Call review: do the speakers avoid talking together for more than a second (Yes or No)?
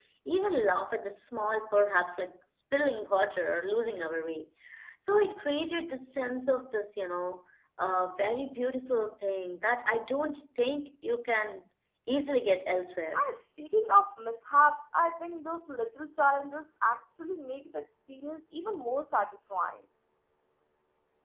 Yes